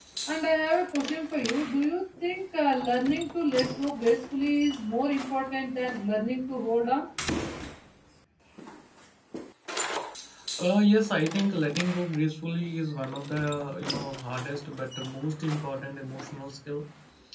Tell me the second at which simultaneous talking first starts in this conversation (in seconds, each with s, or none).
none